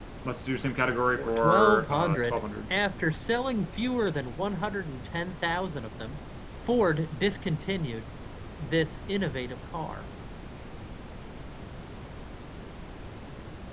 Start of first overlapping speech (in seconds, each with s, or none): 1.1 s